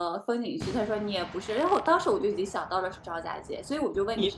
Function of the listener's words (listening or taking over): taking over